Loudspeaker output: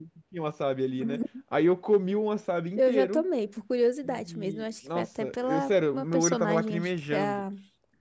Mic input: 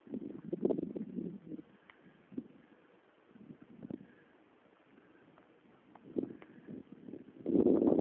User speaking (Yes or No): No